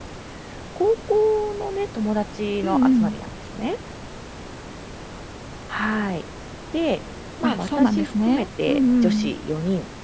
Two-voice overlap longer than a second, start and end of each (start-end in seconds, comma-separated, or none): 7.4-9.1